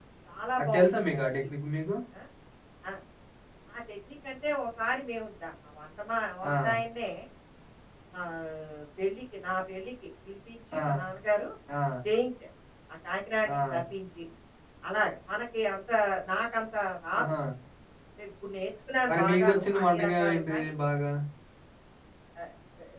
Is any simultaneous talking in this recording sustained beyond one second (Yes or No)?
Yes